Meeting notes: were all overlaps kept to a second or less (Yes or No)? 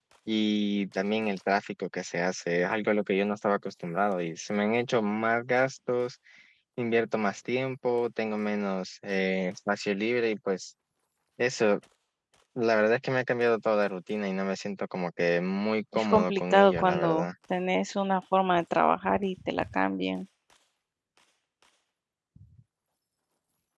No